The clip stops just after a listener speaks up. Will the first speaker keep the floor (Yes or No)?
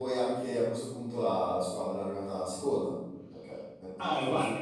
No